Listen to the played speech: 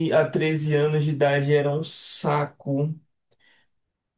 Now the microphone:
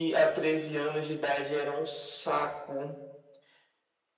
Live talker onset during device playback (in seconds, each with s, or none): none